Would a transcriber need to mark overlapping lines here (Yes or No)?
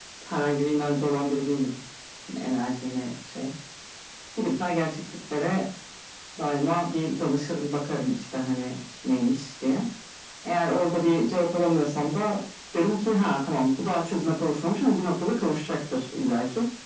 No